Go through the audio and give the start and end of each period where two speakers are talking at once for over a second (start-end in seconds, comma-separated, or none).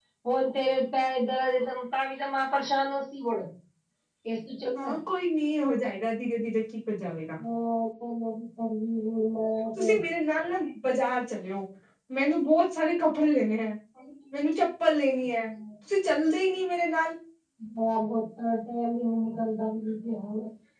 none